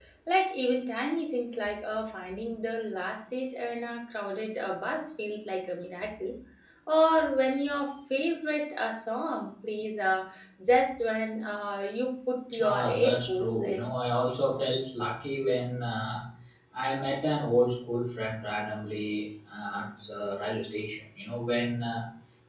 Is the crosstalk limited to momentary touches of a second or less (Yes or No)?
No